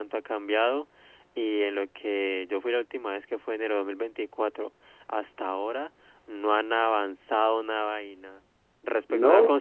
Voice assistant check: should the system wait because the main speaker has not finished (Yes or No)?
Yes